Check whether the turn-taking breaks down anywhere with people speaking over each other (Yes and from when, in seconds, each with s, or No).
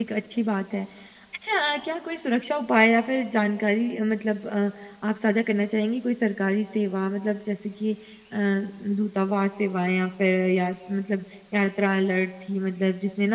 No